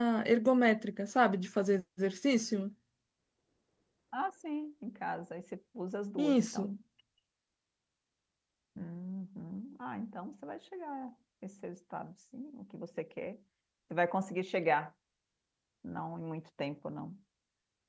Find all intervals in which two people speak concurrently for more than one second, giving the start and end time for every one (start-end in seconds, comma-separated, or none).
none